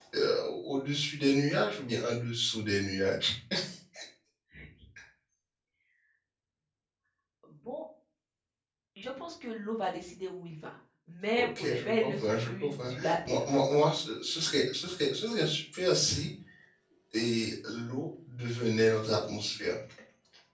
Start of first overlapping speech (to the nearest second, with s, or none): 11 s